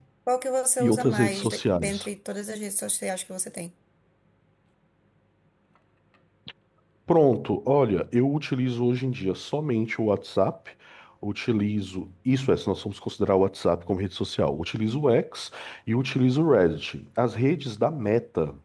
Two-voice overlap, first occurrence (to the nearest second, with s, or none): 1 s